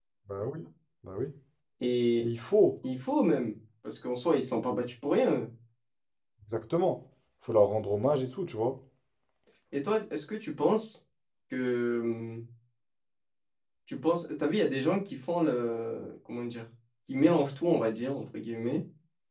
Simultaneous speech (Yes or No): No